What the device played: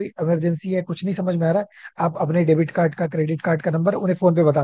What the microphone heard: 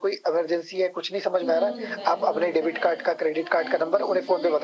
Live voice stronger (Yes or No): No